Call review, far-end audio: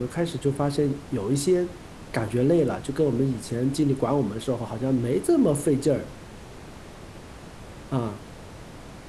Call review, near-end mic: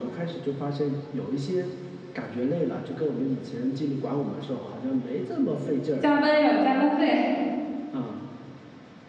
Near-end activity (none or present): present